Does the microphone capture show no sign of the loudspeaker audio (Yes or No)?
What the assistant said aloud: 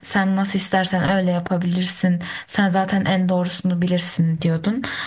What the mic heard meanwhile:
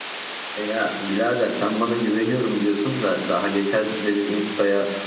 Yes